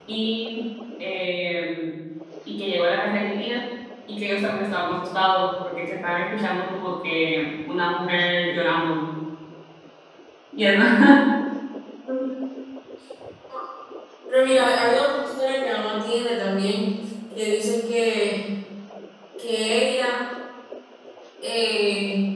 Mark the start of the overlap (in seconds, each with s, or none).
none